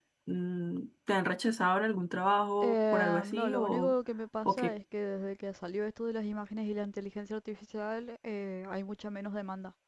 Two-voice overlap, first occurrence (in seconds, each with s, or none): 2.6 s